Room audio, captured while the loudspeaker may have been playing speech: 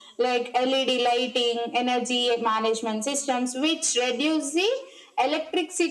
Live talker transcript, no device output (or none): none